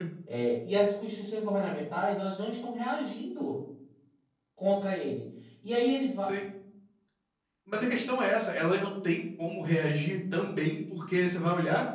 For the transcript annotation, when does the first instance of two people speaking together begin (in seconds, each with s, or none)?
none